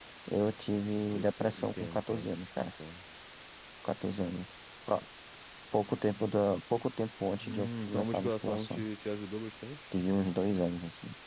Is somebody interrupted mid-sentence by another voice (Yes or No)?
Yes